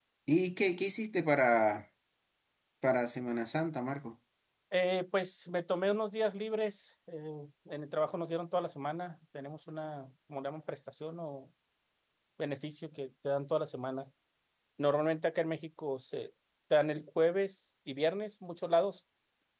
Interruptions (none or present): none